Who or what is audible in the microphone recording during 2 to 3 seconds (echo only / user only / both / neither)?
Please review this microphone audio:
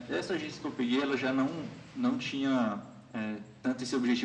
echo only